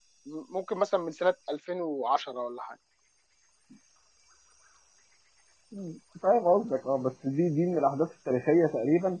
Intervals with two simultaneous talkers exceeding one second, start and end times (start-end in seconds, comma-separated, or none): none